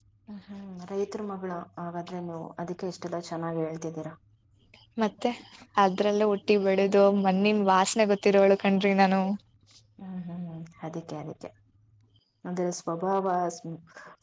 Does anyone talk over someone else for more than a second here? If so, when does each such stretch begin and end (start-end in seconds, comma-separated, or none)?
none